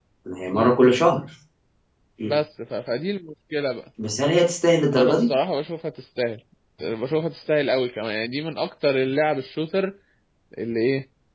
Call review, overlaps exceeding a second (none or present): none